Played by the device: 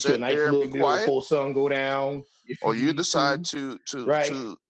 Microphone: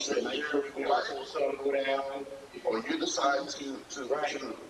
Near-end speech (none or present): none